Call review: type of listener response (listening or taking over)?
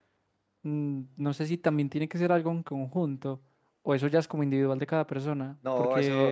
taking over